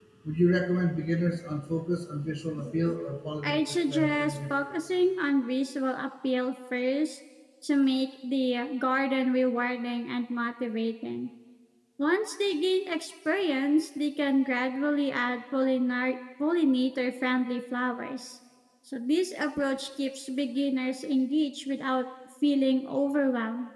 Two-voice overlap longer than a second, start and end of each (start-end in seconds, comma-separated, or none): 3.4-4.8